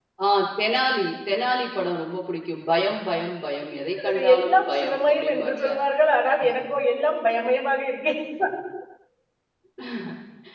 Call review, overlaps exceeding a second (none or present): present